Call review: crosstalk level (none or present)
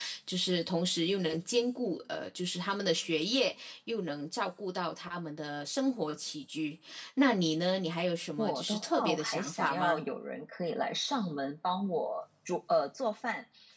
present